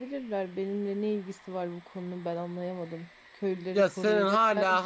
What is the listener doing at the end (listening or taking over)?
taking over